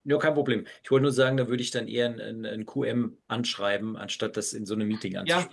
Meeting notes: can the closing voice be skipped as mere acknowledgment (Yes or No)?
No